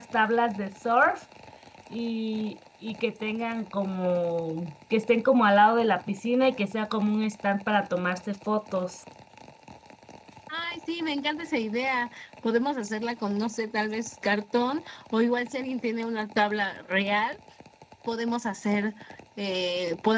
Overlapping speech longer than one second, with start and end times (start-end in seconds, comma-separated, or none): none